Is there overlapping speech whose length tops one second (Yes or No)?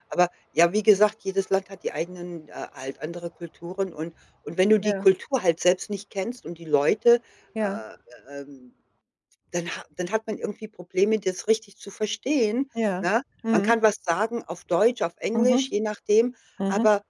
No